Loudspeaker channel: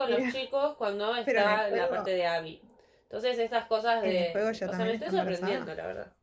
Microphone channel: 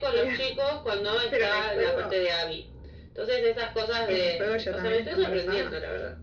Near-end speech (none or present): none